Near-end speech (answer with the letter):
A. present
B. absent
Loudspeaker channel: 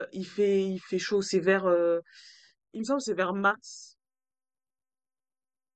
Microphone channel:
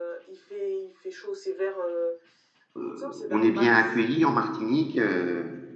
A